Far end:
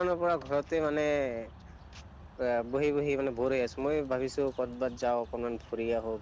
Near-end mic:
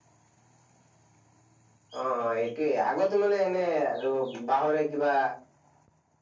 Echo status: none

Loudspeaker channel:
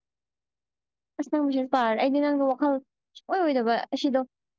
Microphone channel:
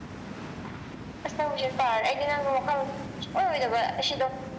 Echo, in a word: present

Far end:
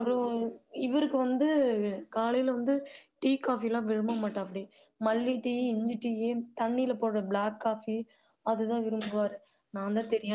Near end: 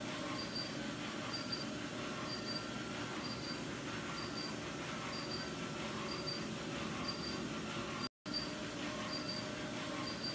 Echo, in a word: none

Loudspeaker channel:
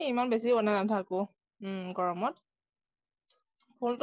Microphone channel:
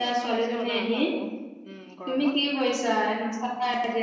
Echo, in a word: present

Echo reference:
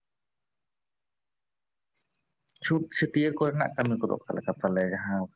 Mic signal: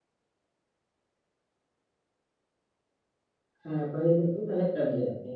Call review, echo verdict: none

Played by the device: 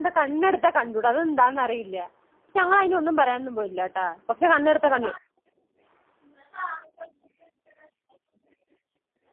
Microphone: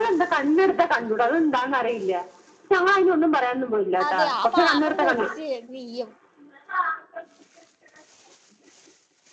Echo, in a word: present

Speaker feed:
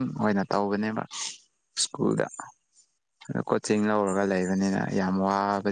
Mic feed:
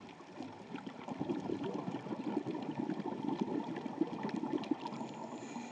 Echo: none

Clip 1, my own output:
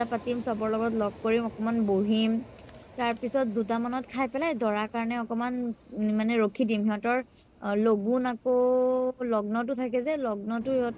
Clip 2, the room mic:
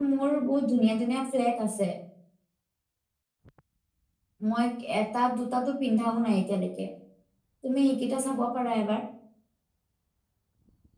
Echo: none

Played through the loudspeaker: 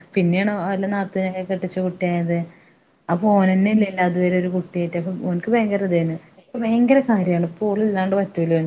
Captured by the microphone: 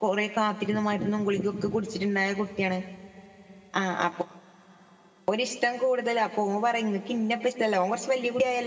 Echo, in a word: none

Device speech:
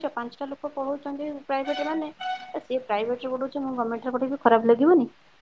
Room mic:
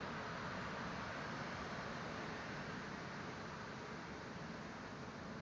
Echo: none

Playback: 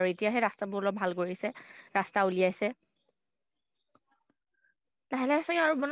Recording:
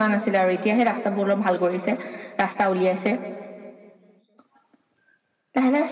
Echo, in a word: present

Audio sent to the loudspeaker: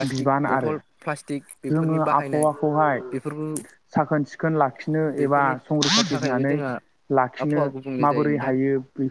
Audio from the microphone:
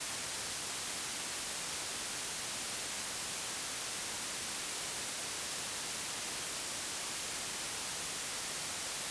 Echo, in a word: none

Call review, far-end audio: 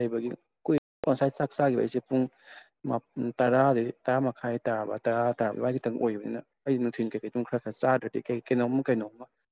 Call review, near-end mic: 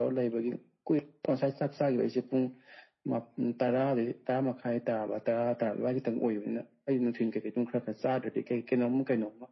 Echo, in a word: present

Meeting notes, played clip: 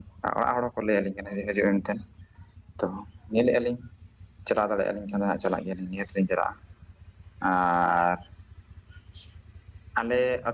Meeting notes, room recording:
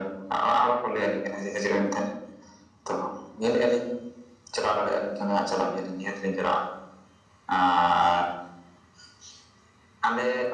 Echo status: present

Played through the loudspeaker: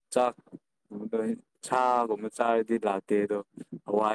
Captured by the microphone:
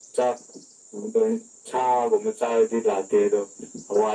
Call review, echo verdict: present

